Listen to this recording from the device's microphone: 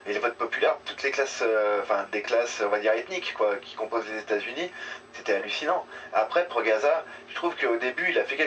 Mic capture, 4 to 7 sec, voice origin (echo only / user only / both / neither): echo only